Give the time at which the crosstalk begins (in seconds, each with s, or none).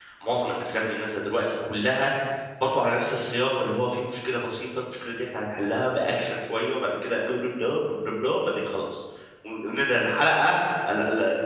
none